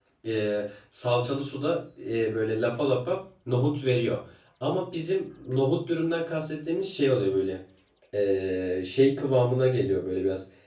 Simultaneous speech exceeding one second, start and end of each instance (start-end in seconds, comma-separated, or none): none